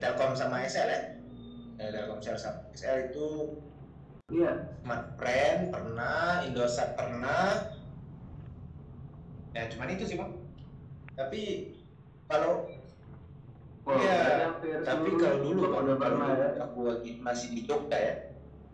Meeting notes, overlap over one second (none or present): present